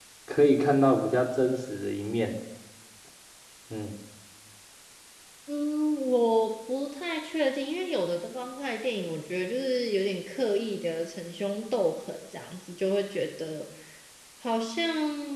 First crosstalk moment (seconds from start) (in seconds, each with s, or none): none